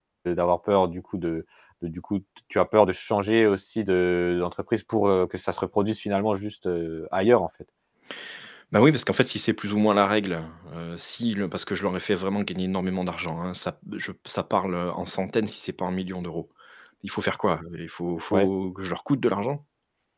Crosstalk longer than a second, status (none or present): none